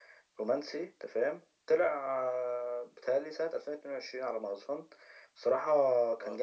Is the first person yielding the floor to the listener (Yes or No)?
No